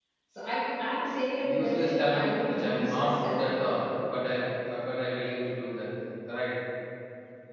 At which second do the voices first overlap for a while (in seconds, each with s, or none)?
1.4 s